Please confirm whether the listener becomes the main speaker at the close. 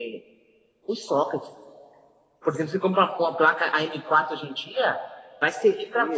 No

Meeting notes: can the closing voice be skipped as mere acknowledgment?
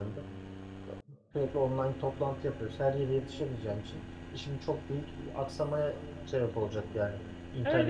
No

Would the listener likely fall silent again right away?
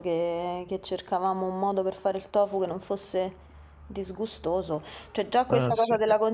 Yes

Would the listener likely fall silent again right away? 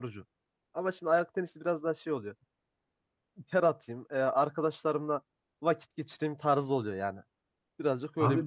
No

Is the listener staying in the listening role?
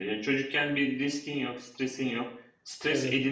Yes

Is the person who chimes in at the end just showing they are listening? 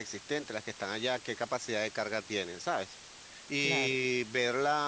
Yes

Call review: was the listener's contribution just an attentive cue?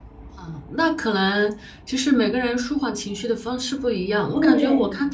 Yes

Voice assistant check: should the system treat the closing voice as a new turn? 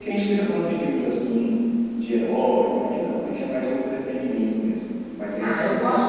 Yes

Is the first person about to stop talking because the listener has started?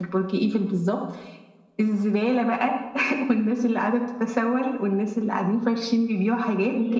No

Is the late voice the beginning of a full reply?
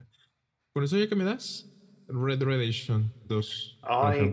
Yes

